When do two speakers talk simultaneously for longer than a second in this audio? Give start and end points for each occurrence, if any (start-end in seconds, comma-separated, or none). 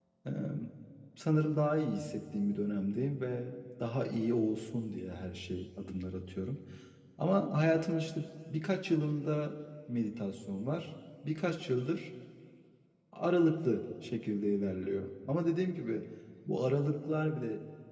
none